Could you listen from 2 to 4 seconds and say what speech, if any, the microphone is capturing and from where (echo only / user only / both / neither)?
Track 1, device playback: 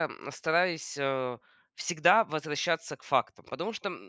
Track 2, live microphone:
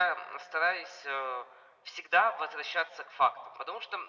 echo only